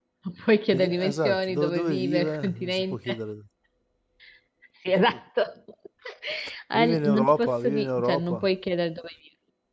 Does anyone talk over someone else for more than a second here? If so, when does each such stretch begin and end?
0.7-3.2, 6.7-8.5

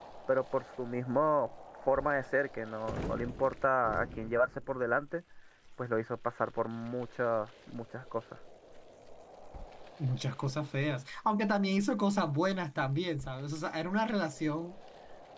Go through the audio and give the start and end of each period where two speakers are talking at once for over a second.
none

